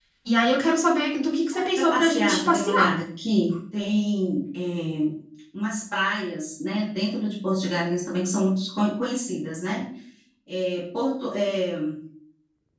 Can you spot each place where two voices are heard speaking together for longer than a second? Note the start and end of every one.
1.5-2.9

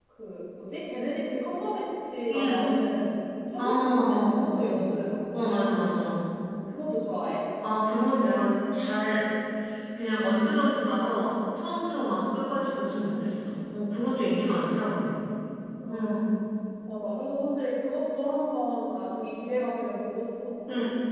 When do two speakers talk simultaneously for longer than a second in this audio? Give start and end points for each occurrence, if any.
3.6-4.9

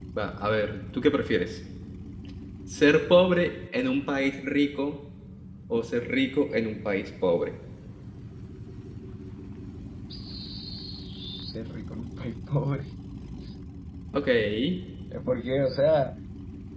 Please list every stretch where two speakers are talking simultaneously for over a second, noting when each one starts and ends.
none

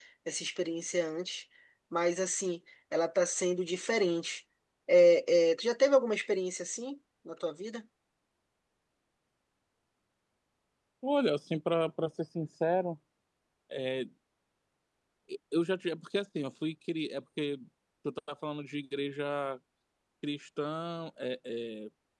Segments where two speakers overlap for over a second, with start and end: none

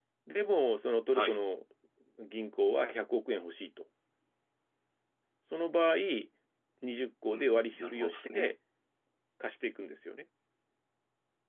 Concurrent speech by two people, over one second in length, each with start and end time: 7.3-8.5

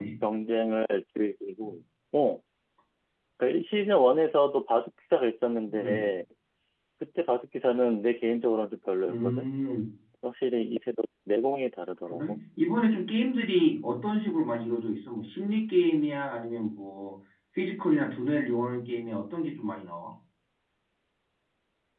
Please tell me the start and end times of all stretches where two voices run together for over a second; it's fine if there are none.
none

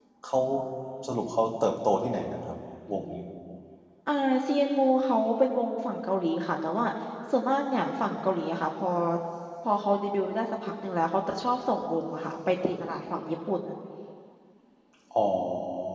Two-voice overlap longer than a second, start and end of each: none

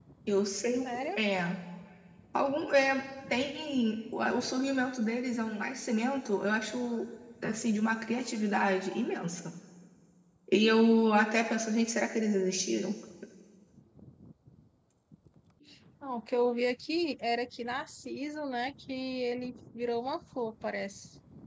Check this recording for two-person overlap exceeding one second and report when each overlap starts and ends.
none

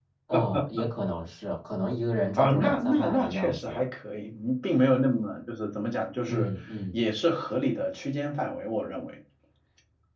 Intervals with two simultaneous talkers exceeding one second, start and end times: 2.4-3.8

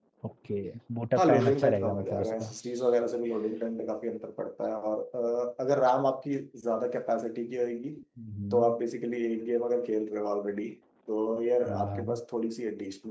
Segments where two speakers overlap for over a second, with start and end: 1.2-2.5

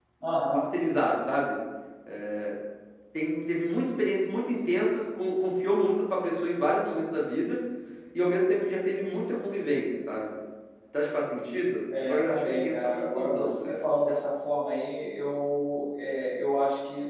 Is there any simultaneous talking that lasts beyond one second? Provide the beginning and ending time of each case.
12.0-13.8

